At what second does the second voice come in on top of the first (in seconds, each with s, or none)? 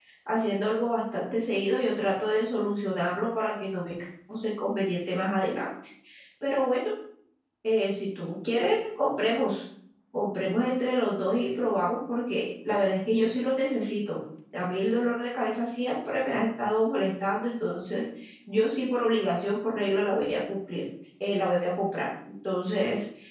none